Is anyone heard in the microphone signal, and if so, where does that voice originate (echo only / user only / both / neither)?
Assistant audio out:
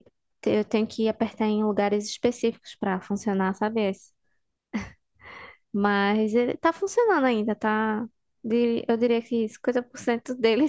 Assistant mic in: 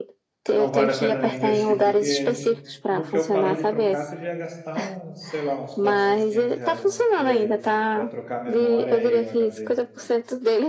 both